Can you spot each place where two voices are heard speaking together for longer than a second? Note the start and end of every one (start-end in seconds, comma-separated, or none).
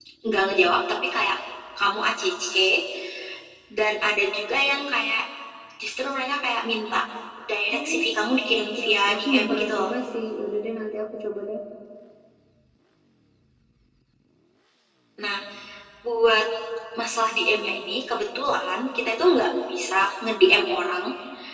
8.6-9.9